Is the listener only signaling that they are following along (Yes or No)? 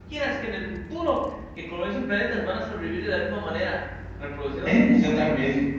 No